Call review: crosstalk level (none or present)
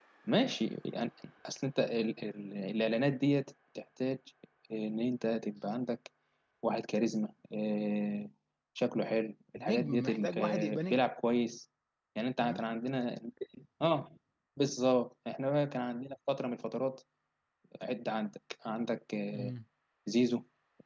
present